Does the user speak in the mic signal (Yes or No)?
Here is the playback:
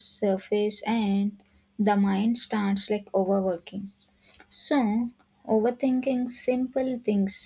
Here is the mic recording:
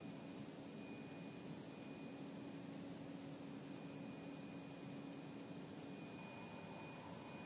No